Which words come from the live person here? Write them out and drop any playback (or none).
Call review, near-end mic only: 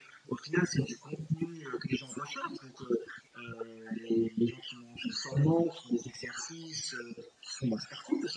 none